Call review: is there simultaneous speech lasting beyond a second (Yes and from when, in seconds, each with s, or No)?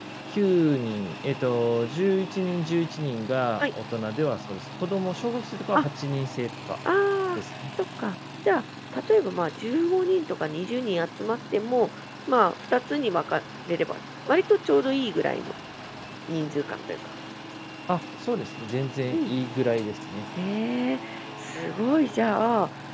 No